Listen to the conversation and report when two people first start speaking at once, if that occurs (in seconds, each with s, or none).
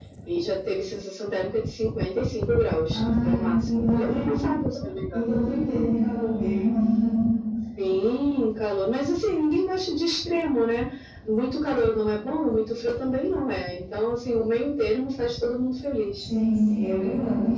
2.9 s